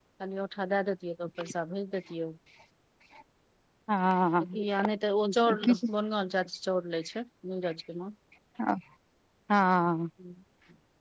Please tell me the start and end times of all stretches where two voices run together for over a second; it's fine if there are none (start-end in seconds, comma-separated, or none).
none